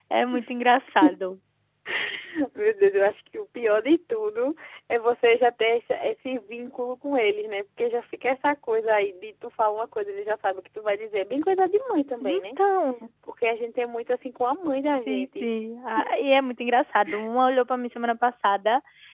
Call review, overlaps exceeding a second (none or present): none